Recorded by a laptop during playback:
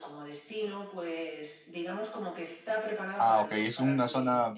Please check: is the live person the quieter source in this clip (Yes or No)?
No